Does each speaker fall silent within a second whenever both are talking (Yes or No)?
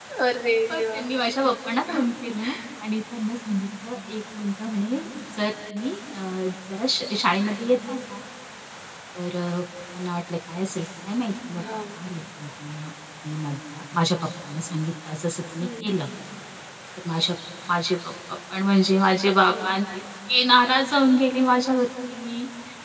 Yes